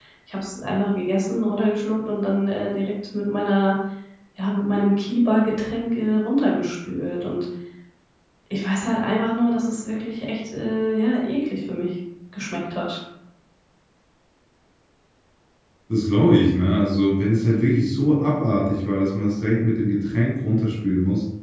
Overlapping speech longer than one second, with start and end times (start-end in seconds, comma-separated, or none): none